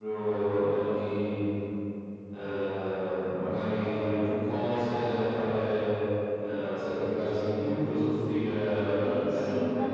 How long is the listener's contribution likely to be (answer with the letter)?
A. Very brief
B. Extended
B